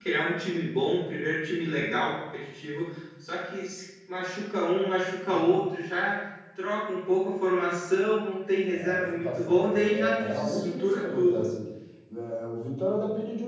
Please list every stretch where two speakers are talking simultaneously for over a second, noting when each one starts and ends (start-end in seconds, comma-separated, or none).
8.7-11.4